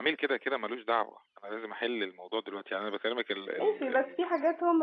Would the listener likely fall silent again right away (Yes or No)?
No